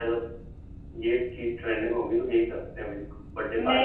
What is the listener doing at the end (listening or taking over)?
taking over